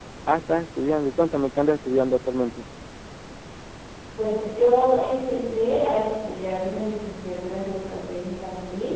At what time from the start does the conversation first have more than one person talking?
none

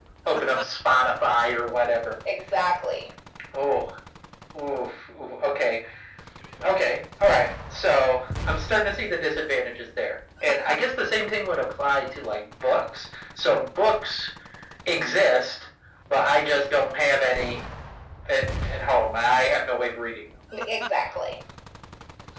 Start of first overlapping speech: none

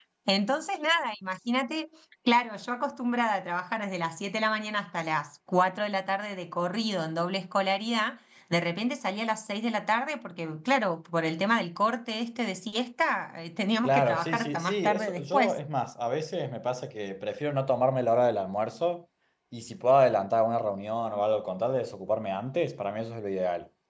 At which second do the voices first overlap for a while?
14 s

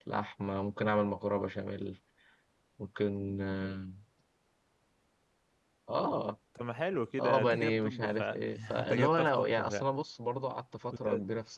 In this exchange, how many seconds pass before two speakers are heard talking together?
7 s

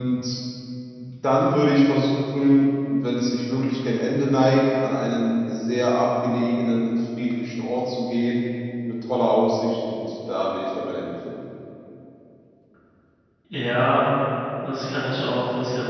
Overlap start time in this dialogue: none

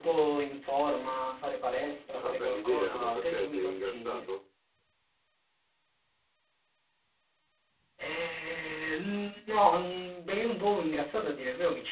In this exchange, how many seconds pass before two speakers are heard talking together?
2 s

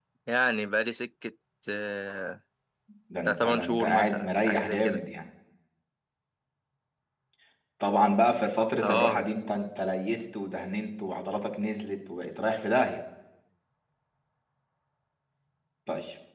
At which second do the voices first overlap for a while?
3 s

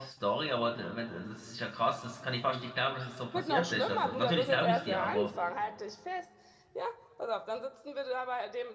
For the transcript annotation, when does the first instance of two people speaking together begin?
3 s

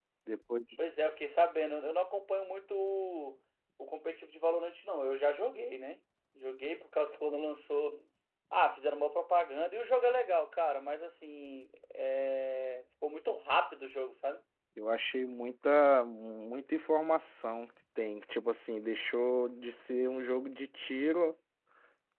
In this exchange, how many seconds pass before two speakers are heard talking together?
none

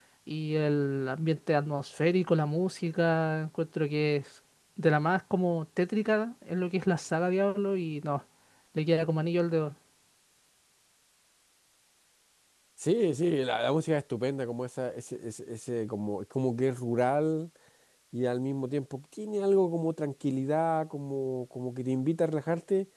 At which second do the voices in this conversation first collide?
none

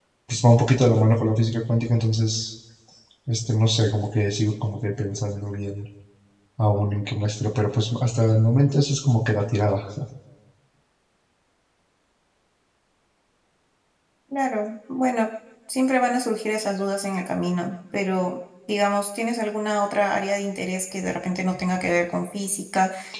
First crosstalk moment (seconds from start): none

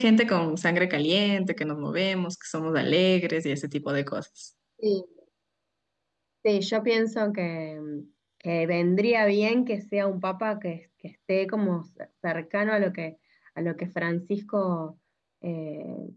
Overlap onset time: none

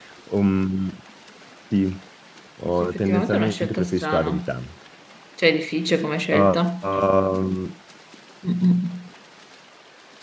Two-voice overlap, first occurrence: 3 s

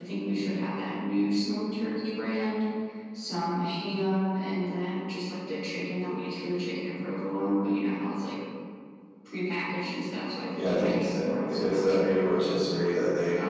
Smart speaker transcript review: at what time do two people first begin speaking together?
11 s

